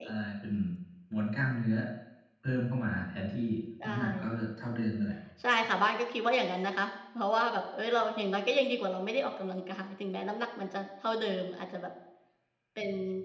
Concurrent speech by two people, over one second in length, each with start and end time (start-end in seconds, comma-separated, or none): none